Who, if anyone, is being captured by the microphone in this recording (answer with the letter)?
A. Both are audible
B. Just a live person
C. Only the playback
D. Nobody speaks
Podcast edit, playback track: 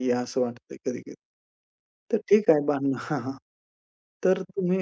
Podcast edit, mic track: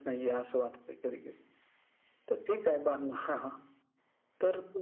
C